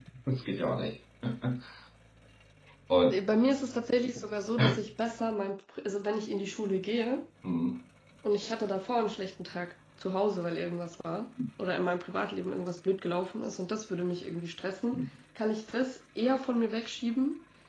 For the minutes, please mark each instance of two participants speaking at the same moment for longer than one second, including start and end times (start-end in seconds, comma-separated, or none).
none